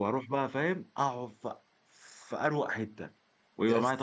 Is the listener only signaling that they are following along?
Yes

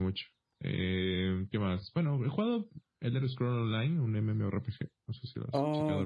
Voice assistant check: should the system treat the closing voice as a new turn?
Yes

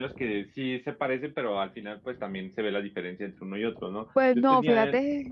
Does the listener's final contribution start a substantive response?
Yes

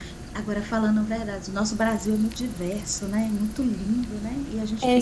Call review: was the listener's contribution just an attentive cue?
No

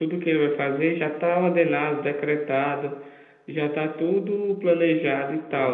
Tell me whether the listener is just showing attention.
Yes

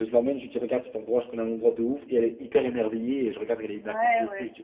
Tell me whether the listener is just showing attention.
No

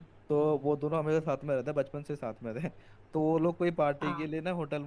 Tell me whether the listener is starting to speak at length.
No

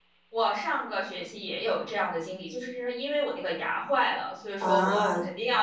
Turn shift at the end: No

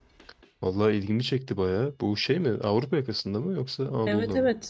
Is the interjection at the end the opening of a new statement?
Yes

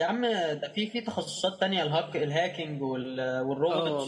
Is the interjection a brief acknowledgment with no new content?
No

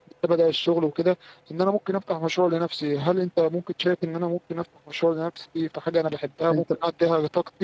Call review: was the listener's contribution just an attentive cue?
Yes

